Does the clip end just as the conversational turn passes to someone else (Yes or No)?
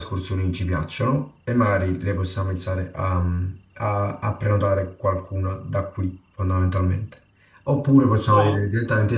No